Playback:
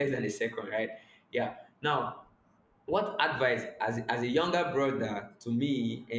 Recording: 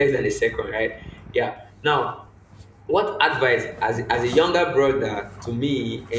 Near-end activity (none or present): none